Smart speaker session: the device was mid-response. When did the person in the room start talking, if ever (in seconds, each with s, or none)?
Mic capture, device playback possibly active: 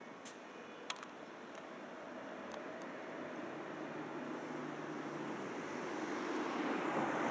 none